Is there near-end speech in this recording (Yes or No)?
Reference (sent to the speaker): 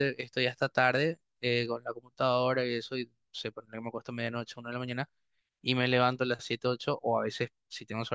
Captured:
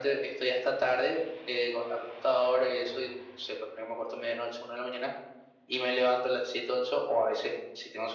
No